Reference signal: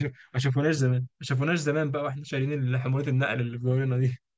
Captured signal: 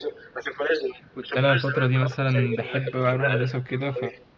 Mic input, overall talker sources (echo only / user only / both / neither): both